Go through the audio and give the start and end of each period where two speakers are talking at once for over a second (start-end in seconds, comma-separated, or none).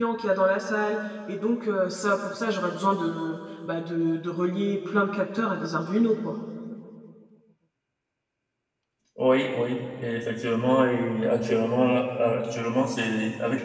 none